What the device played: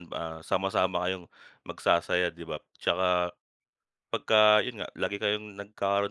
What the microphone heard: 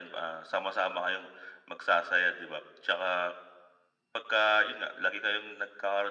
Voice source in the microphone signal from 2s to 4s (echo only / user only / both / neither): echo only